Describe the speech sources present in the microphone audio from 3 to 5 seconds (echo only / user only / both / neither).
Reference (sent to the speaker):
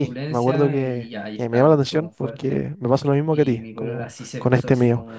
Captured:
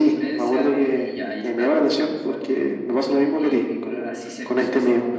echo only